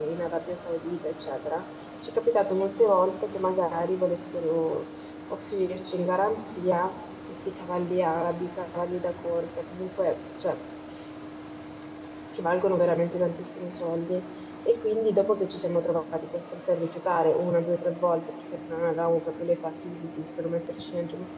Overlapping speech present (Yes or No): No